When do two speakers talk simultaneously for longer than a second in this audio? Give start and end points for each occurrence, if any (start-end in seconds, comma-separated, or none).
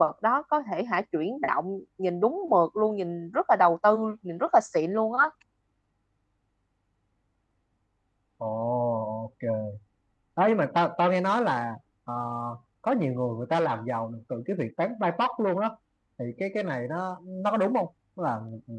none